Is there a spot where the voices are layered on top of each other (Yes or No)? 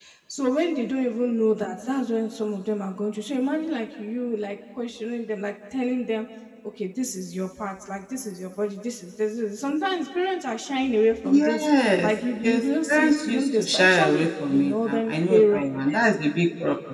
Yes